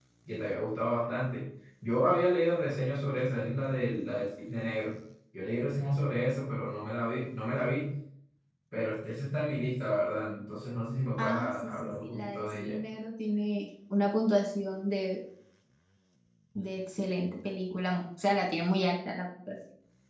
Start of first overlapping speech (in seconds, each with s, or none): 11.2 s